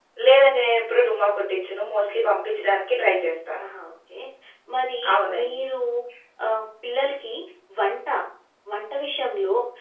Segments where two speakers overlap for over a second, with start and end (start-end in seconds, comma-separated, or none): none